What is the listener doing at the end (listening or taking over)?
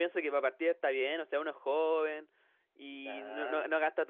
listening